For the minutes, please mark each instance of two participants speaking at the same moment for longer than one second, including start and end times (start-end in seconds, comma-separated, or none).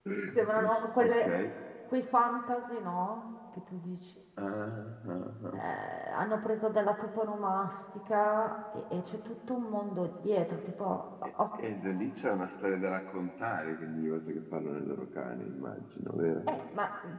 none